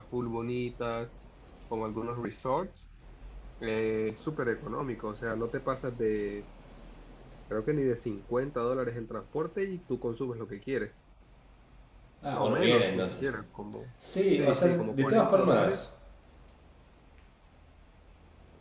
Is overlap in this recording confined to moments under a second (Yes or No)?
No